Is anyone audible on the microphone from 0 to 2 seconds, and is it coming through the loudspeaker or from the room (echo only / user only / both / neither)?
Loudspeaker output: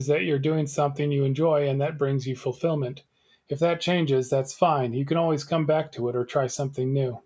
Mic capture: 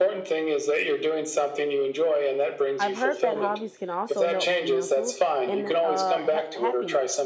echo only